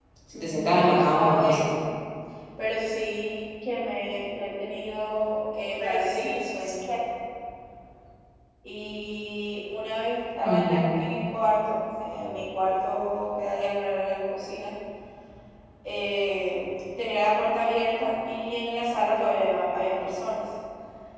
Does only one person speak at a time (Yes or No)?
No